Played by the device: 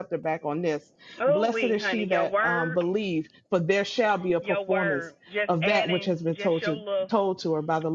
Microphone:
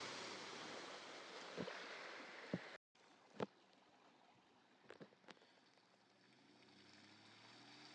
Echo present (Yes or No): No